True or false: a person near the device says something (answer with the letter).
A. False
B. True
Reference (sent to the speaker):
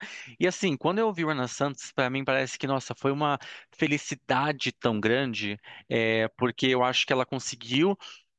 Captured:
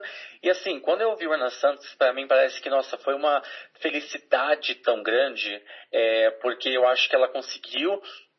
A